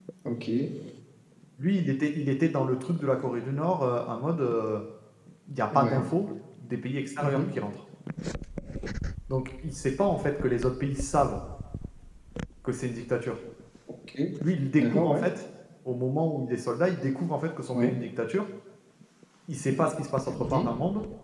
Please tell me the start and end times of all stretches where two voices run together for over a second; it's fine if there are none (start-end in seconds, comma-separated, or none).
none